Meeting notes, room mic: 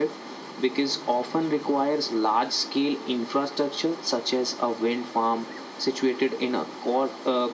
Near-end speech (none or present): none